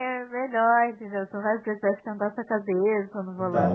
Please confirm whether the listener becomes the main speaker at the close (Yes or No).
Yes